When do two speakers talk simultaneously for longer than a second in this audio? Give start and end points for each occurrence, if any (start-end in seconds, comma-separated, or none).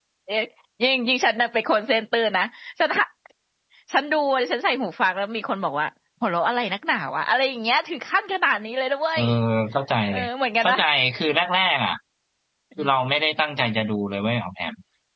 none